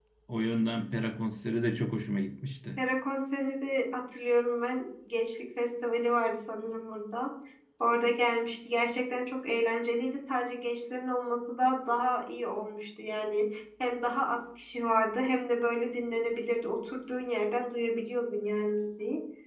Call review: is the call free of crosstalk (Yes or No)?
Yes